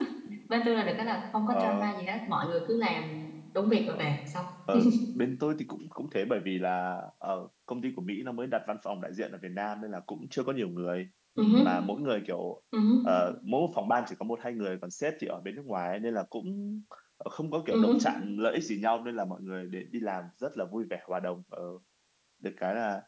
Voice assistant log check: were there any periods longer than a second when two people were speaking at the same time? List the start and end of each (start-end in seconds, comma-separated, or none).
none